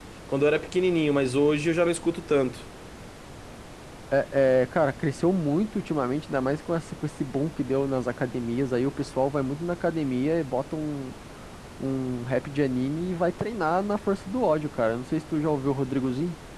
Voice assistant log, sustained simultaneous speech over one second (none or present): none